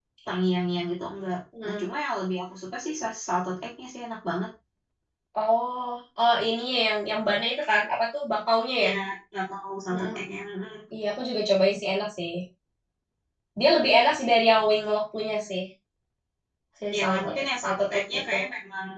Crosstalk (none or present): present